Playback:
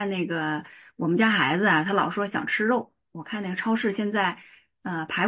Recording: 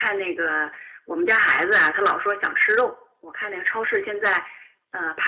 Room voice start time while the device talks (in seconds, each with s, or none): none